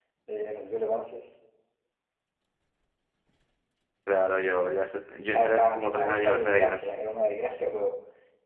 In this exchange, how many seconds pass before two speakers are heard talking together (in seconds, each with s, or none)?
5.3 s